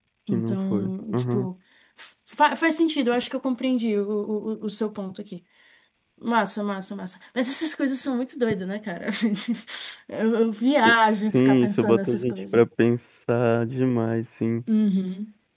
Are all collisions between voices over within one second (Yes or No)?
No